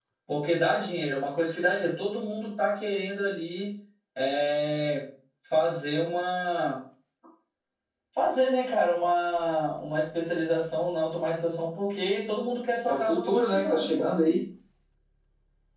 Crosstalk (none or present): present